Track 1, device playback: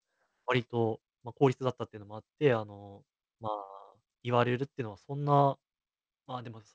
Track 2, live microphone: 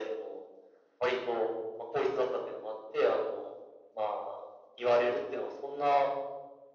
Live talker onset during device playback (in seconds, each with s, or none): none